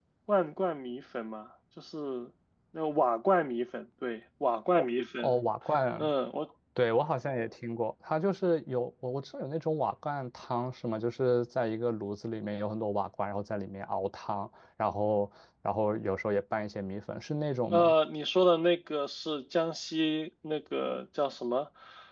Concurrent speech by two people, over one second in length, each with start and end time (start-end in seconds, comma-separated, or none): none